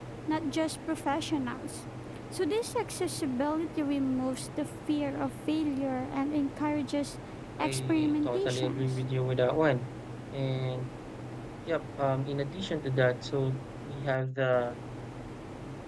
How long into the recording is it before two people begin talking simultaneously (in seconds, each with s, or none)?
7.6 s